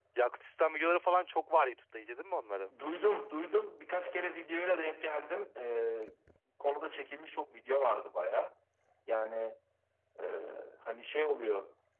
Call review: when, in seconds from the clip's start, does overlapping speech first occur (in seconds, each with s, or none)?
none